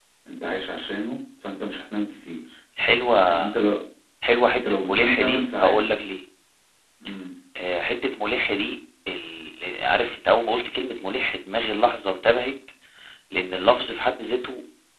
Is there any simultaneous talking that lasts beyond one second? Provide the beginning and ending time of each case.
4.5-5.8

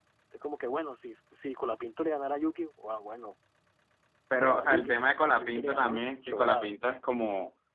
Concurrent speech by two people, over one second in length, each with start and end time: 4.4-6.7

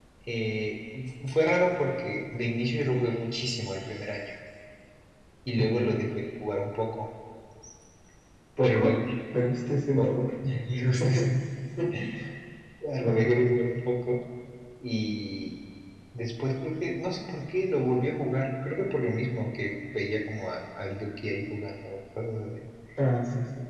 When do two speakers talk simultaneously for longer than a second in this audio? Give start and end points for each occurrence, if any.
none

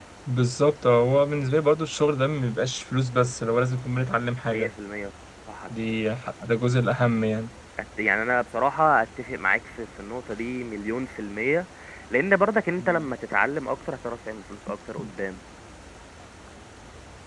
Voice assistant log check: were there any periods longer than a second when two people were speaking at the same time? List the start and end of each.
none

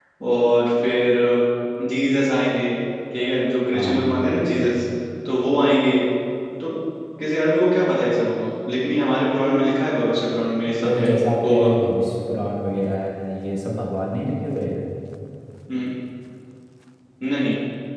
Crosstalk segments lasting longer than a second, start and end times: none

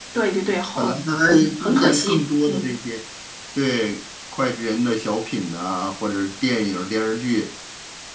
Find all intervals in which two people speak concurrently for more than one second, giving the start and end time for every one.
1.3-2.8

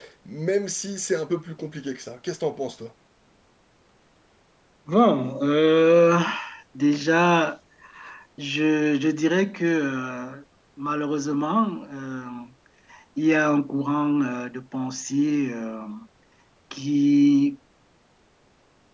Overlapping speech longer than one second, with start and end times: none

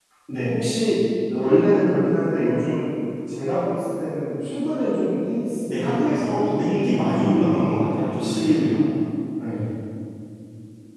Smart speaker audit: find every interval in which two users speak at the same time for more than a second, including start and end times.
5.7-7.7

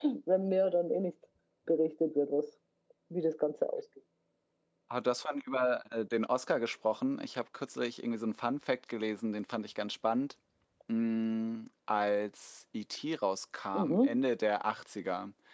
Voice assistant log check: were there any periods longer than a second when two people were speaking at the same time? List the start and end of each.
none

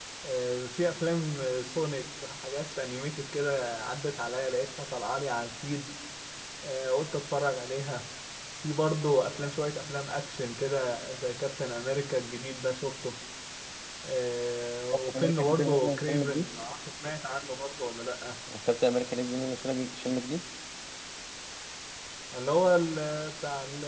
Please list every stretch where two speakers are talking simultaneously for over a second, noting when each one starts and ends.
15.1-16.5

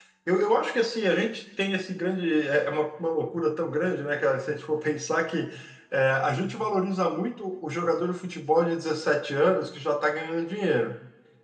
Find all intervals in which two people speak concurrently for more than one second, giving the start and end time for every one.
none

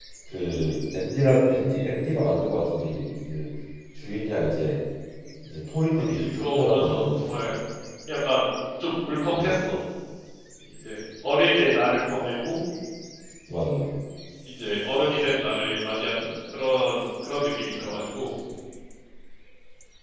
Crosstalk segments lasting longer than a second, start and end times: 6.1-7.4

